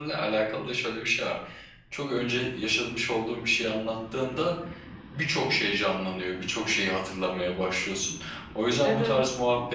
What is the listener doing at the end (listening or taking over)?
listening